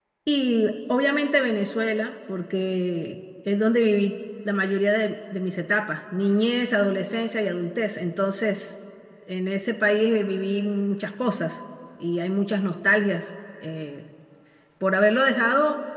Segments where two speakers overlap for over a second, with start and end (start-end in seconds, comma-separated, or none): none